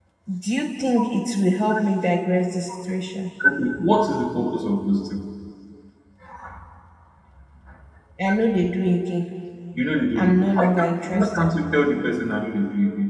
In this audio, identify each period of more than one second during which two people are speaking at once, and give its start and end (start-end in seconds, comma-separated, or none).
10.2-11.4